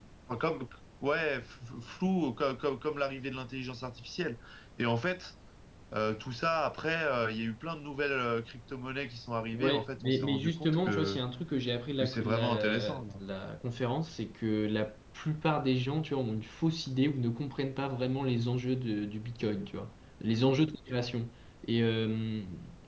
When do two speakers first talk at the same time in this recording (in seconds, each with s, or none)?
9.5 s